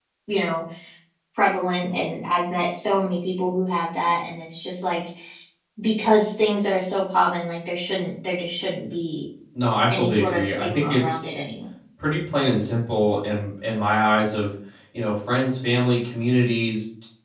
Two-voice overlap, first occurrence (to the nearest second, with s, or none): 10 s